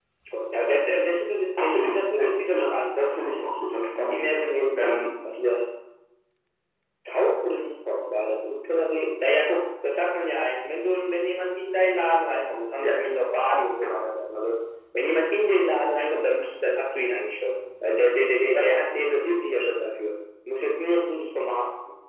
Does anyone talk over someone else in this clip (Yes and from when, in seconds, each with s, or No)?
Yes, from 1.6 s